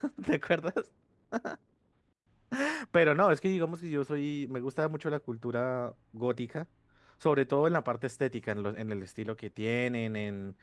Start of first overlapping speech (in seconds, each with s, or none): none